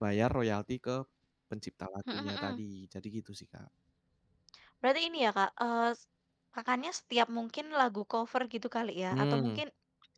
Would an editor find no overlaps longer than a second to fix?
Yes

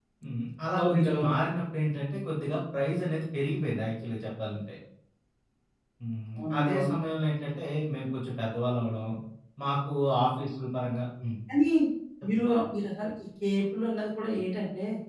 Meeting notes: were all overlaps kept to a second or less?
Yes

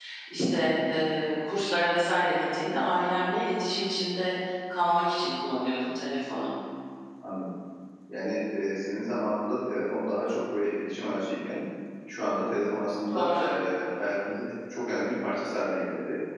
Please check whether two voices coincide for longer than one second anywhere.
No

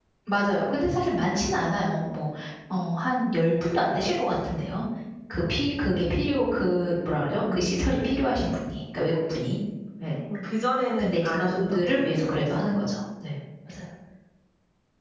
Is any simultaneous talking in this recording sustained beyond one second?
Yes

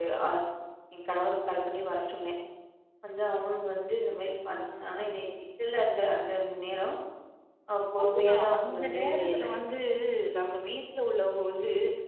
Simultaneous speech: Yes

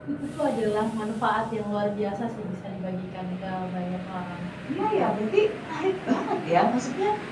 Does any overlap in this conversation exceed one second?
No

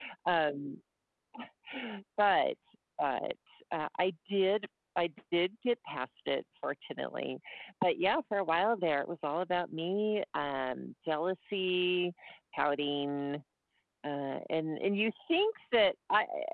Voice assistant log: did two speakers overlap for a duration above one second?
No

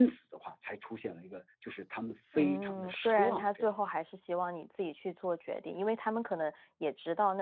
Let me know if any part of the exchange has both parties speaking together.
Yes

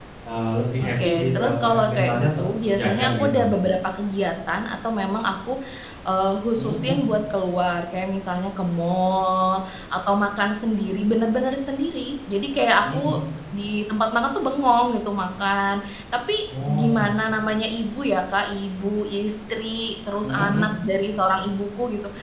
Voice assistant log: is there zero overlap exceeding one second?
No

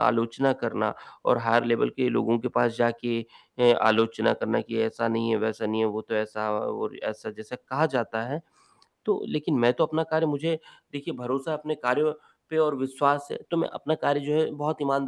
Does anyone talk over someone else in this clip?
No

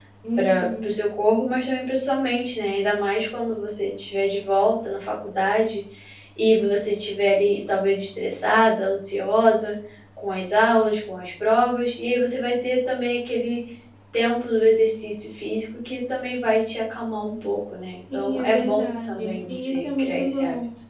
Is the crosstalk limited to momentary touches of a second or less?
No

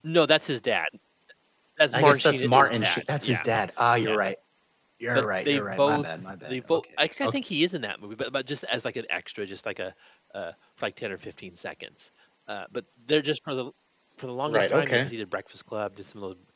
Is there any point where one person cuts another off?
Yes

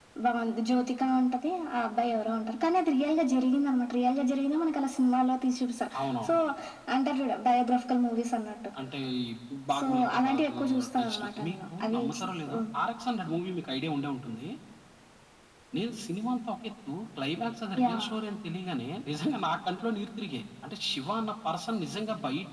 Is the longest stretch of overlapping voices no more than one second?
No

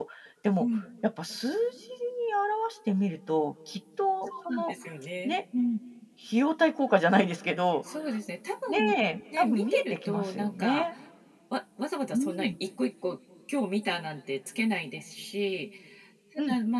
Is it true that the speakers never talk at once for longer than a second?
No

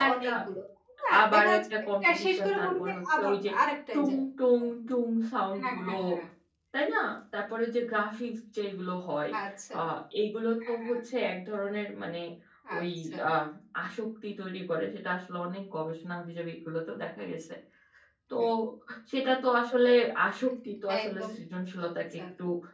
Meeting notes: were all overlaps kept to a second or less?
No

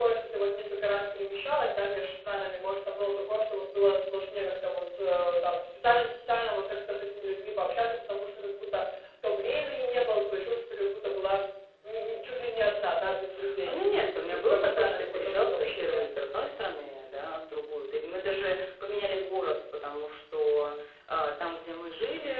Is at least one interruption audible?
Yes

